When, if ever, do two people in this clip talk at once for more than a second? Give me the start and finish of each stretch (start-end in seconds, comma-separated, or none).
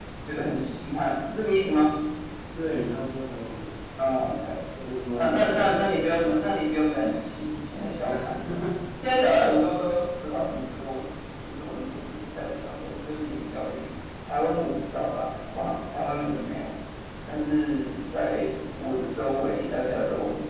5.2-6.4